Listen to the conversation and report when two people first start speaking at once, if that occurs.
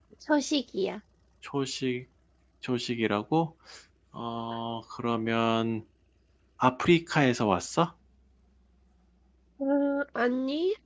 none

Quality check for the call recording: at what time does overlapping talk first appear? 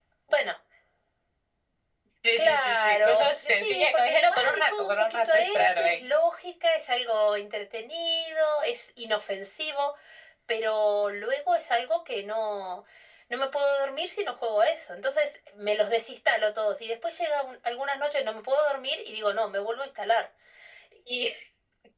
2 s

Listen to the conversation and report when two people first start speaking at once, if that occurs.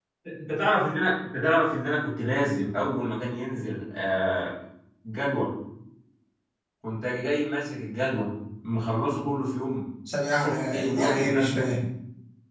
10 s

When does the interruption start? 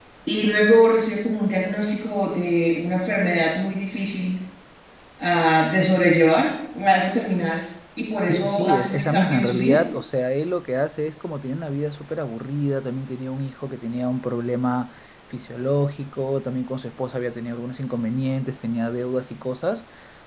8 s

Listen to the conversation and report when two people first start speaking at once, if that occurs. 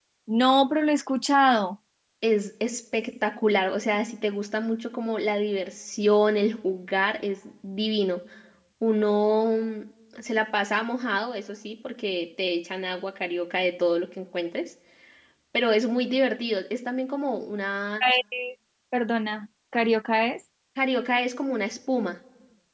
none

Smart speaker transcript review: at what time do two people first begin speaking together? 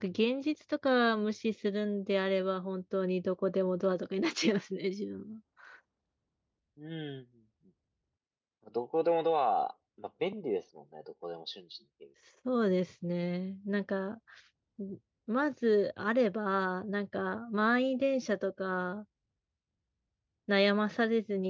none

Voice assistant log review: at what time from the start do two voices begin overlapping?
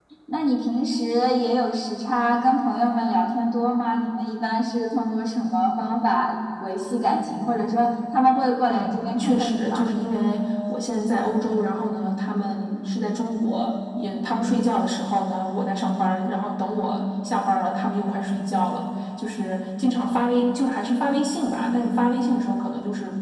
9 s

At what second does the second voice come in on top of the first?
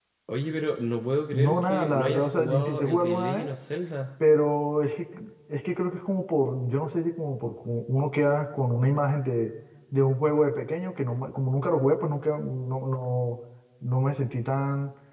1 s

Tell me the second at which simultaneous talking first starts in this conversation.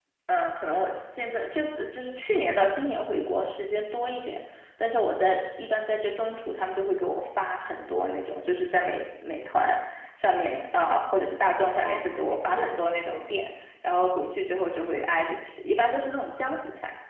12 s

